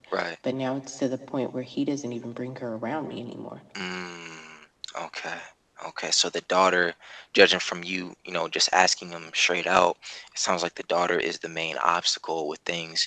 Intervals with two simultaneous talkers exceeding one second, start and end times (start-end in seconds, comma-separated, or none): none